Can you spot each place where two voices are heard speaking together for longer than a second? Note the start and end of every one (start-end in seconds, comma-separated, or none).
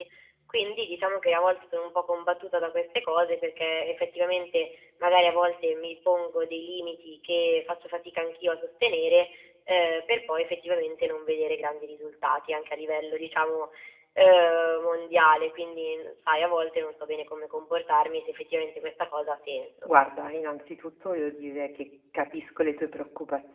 none